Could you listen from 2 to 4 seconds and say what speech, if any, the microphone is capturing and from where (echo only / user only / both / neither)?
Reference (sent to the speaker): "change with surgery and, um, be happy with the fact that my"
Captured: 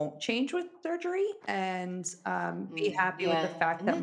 both